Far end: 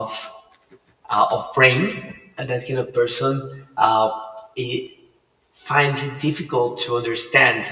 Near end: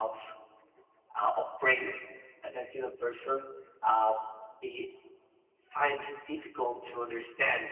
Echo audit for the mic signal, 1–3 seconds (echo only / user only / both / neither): echo only